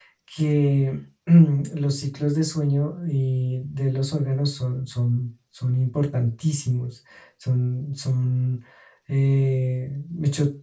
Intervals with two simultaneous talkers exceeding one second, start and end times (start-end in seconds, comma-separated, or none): none